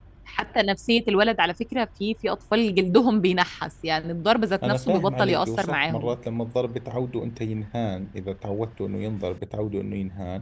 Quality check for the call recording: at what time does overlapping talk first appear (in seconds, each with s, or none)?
4.6 s